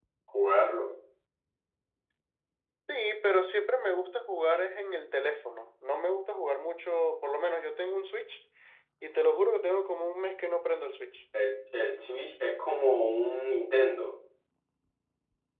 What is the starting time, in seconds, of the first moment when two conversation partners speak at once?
none

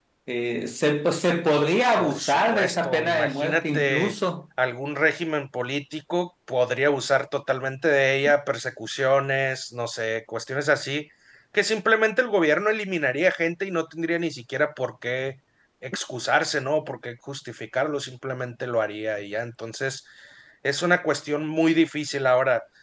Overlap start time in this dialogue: 2.0 s

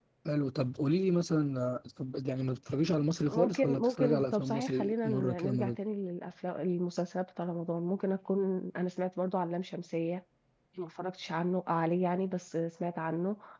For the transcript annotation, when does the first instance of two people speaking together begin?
3.3 s

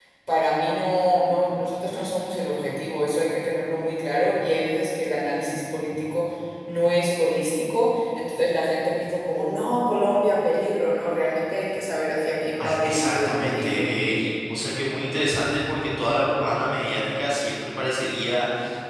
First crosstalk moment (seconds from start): 12.6 s

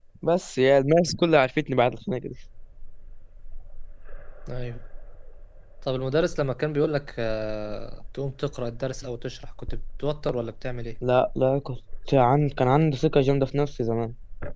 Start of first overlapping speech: none

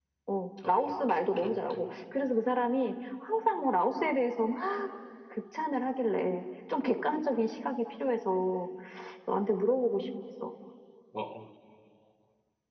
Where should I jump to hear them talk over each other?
0.7 s

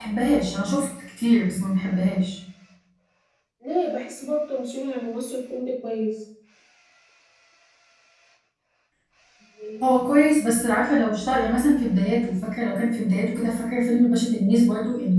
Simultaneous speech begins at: none

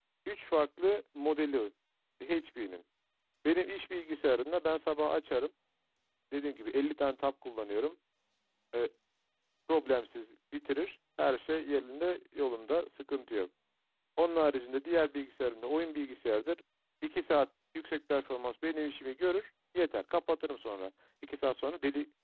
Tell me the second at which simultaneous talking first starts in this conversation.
none

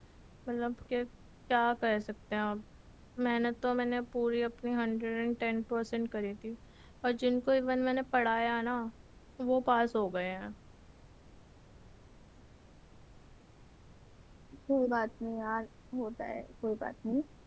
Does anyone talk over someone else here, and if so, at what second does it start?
none

